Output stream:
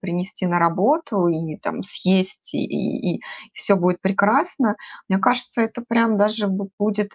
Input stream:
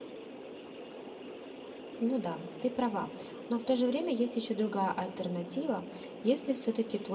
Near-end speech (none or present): present